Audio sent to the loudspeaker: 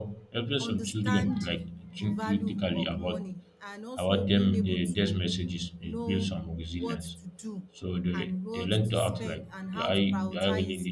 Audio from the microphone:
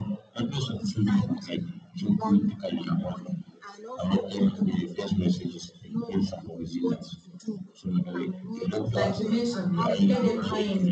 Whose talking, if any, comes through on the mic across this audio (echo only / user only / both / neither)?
both